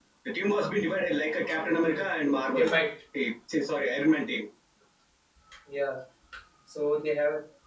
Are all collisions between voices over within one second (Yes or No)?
Yes